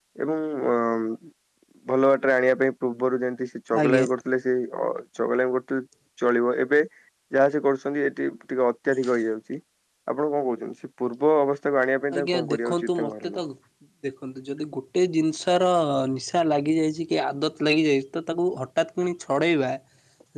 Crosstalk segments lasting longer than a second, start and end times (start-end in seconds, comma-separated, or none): 12.1-13.4